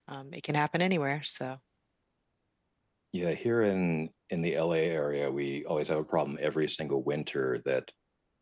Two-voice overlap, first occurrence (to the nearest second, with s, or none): none